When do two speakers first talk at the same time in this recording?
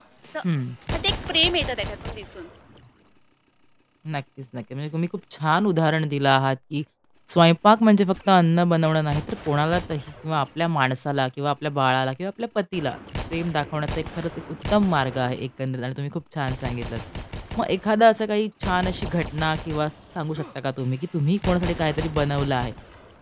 none

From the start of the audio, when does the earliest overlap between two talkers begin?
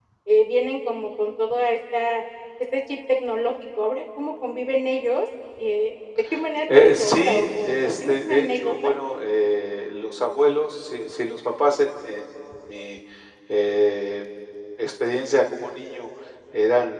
7 s

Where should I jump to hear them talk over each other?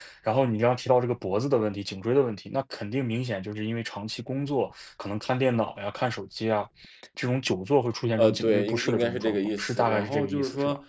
8 s

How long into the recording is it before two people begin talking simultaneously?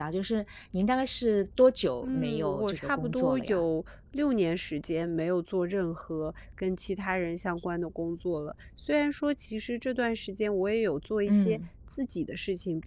2 s

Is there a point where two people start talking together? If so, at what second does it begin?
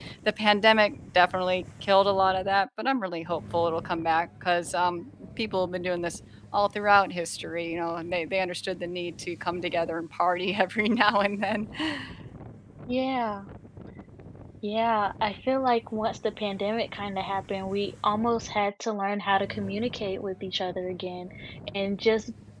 none

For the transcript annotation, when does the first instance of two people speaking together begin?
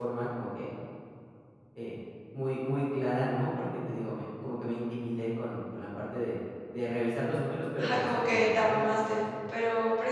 8 s

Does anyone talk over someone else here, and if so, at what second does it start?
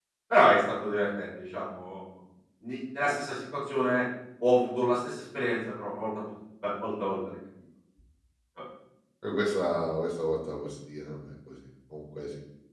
none

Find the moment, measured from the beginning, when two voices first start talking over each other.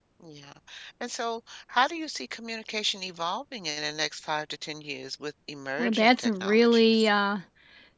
6 s

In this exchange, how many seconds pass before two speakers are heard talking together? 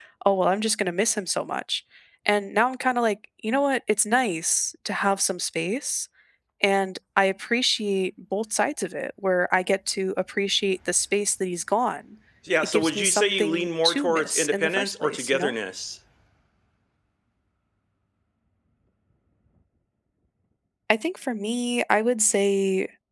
13 s

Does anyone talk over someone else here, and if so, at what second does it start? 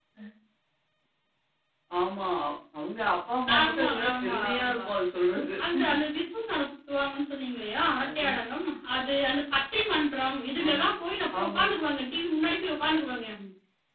4 s

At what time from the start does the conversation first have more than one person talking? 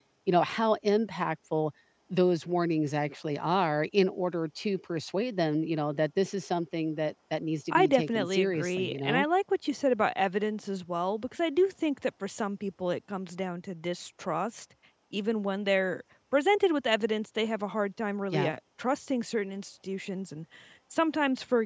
8 s

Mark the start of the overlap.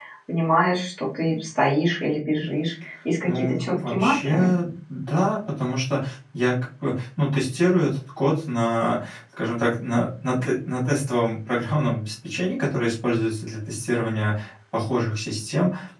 3 s

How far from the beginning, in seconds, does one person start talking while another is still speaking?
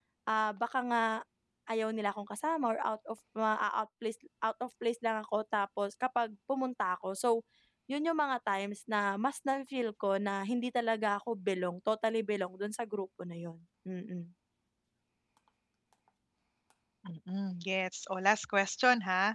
none

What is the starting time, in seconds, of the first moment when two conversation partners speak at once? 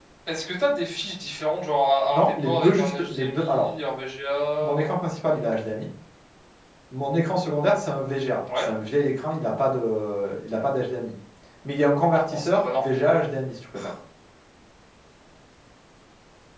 2 s

